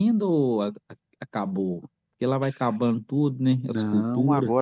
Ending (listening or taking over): taking over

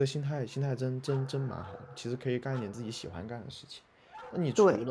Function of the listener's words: listening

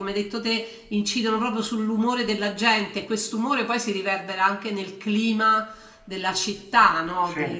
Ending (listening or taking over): listening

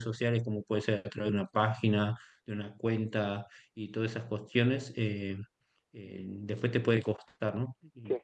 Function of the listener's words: listening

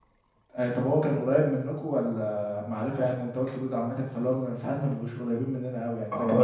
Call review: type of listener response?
taking over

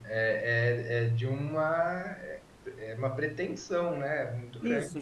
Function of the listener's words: taking over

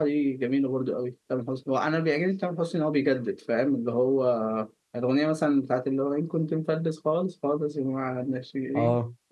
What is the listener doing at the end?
taking over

